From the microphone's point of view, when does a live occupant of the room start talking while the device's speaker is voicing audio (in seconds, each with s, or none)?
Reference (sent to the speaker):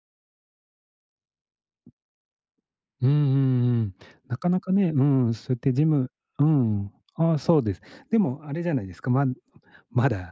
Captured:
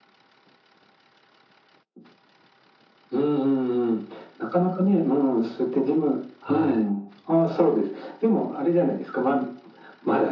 6.4 s